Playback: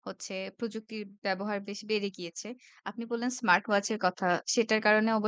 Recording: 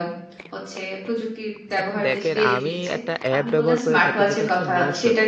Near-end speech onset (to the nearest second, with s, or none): 2 s